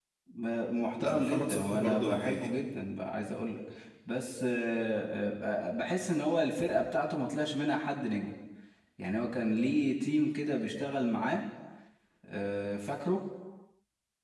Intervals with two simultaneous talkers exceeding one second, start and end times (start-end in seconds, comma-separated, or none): 1.0-2.5